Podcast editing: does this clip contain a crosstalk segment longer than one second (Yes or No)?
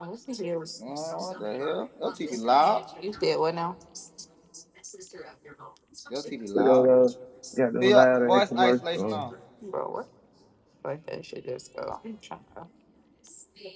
Yes